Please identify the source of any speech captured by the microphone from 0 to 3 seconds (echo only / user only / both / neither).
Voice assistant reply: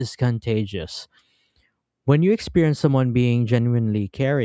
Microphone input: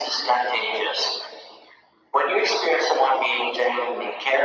echo only